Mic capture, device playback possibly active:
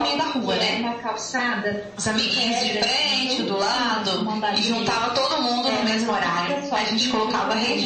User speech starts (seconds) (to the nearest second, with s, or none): none